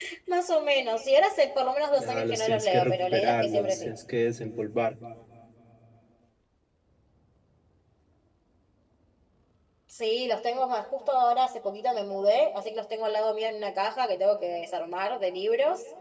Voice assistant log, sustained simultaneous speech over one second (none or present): present